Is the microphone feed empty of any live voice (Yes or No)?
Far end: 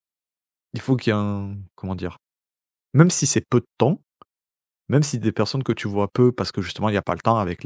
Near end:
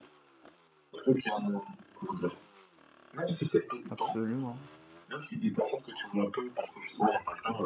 No